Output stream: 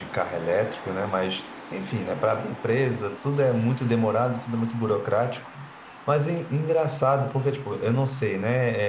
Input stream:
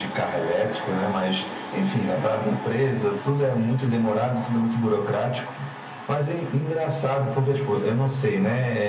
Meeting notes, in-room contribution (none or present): none